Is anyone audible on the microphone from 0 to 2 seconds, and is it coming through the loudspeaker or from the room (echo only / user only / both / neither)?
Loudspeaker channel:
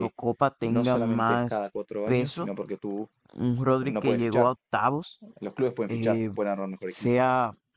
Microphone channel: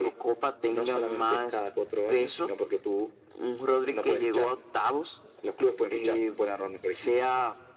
echo only